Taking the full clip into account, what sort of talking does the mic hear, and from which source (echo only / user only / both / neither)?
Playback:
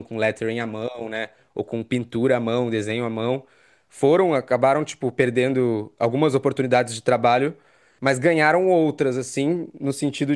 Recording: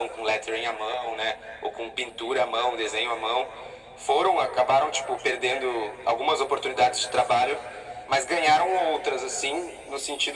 echo only